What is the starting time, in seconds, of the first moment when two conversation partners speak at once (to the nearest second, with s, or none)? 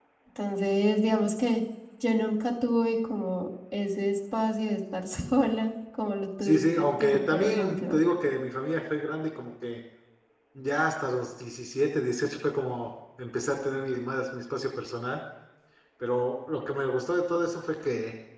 6 s